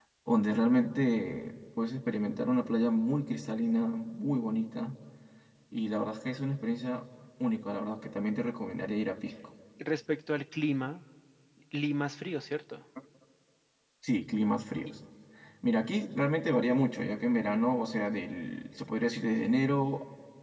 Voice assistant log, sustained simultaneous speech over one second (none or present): none